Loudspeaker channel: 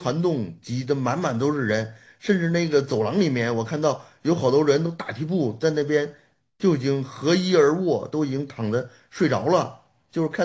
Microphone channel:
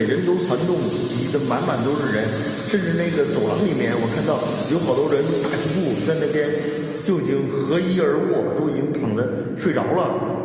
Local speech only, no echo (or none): none